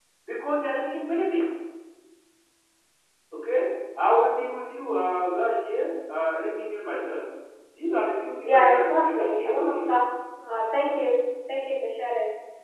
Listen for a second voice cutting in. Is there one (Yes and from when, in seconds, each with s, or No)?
Yes, from 8.4 s